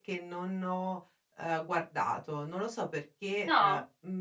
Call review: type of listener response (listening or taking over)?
listening